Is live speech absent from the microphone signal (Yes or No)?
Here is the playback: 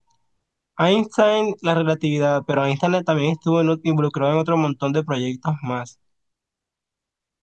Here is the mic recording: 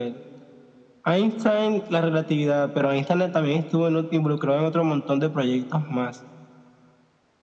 Yes